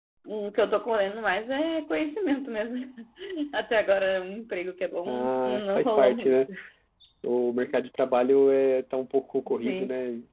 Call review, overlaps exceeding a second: present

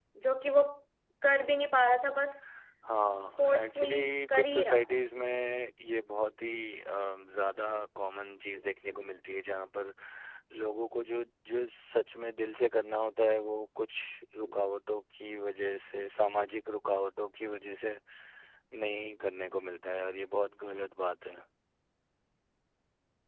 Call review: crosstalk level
present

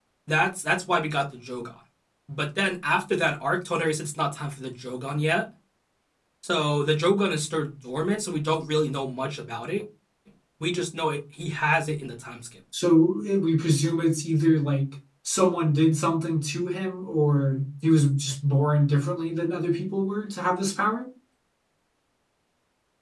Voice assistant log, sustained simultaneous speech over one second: none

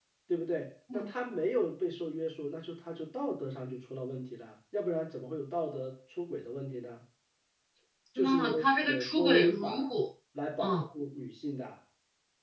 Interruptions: present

